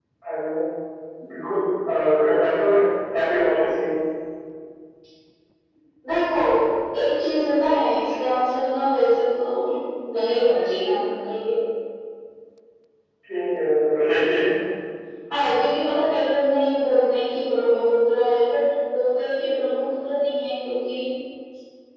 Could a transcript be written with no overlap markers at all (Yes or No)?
Yes